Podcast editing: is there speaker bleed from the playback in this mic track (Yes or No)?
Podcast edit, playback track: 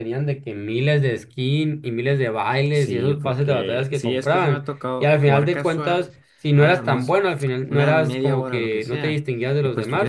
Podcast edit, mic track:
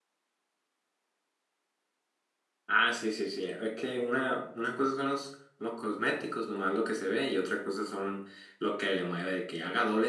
No